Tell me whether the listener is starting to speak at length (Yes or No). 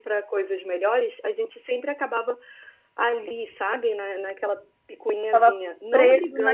Yes